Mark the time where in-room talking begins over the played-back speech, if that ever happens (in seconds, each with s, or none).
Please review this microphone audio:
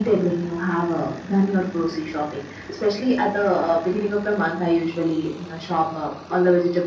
none